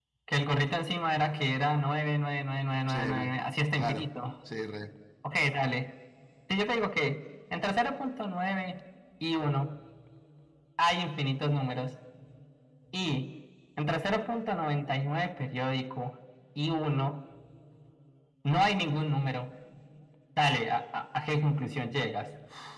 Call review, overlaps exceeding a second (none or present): none